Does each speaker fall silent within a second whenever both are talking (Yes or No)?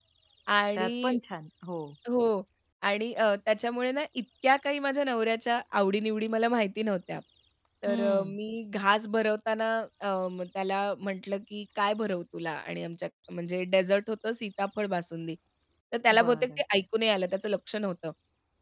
Yes